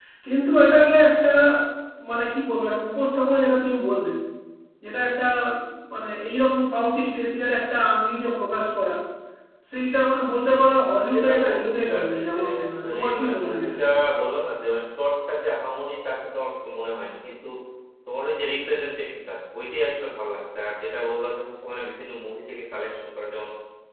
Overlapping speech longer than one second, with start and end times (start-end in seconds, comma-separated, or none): 11.1-13.8